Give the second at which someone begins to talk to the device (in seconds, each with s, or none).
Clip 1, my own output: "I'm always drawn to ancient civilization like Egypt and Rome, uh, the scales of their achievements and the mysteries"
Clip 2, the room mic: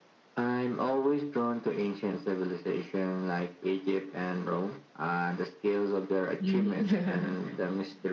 6.4 s